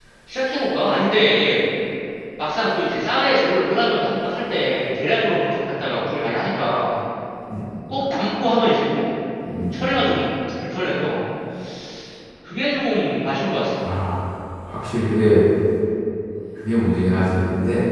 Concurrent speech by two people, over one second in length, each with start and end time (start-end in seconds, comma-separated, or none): none